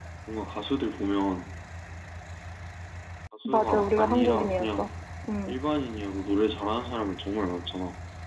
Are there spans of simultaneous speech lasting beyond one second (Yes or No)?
Yes